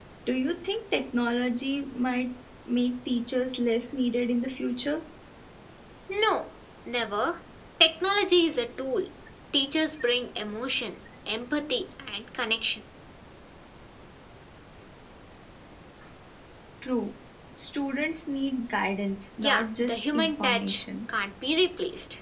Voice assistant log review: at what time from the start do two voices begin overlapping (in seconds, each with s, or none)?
19.4 s